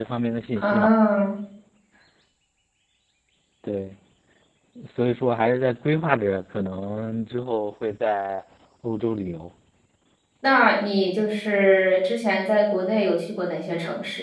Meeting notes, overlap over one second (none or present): none